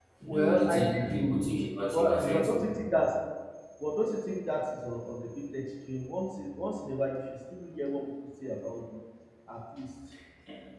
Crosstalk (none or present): present